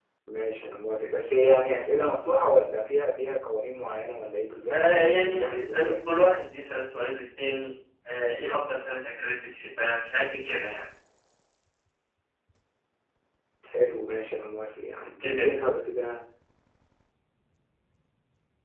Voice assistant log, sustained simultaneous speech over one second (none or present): present